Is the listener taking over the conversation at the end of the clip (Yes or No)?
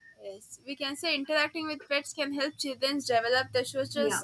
No